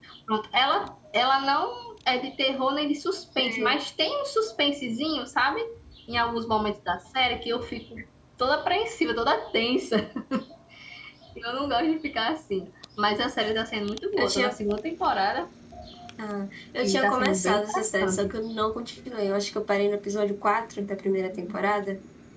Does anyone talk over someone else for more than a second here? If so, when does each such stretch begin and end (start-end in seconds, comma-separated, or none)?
16.8-18.3